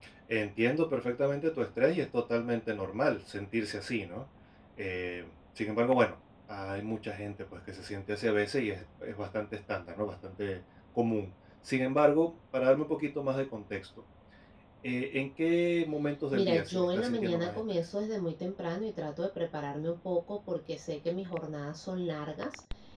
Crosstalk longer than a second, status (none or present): present